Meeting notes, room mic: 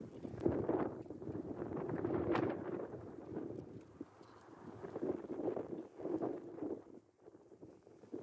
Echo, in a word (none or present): none